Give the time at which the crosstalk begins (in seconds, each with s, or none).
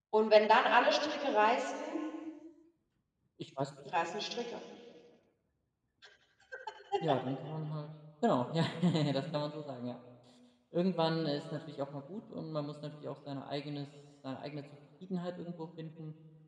none